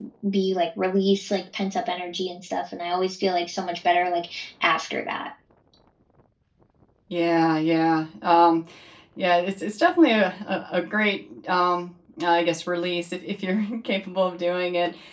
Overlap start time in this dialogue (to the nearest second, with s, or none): none